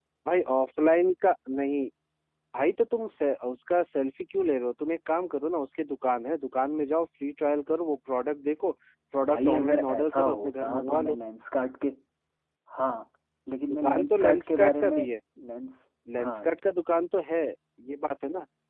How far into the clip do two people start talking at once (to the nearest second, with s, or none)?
9 s